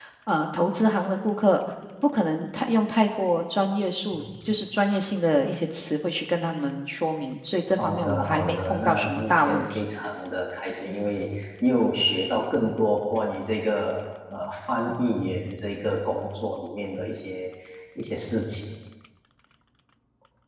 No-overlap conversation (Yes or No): No